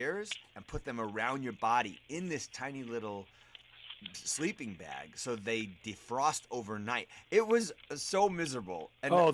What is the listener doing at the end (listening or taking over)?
taking over